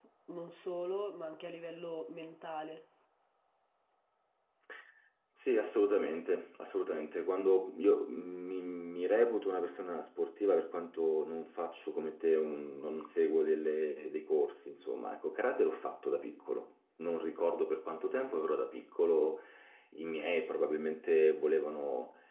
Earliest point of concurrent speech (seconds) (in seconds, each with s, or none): none